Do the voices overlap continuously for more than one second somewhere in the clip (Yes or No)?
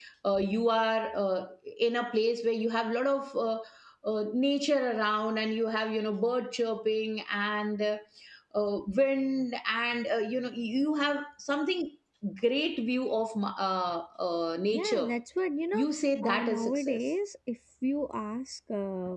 Yes